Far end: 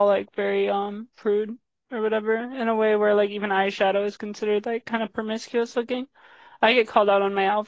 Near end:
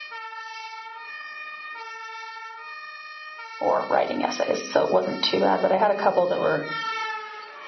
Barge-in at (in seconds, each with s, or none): 3.6 s